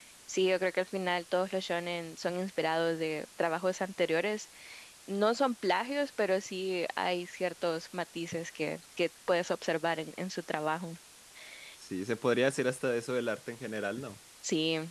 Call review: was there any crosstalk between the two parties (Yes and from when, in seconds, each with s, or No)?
No